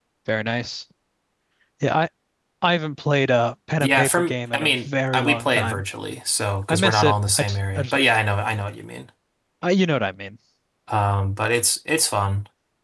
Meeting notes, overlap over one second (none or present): present